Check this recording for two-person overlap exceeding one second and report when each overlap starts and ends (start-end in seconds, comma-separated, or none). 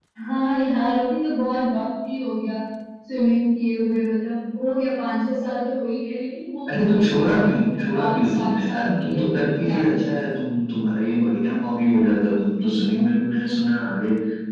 6.7-9.2